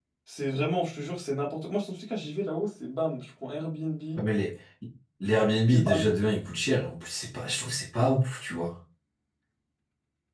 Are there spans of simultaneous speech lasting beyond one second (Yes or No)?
No